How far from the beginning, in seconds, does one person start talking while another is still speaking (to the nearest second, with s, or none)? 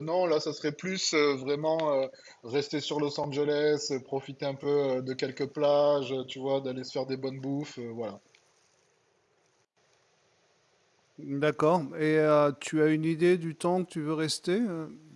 none